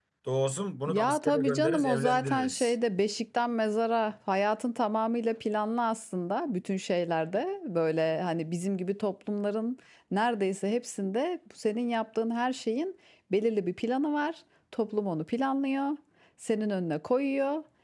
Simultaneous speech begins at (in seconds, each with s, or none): 0.9 s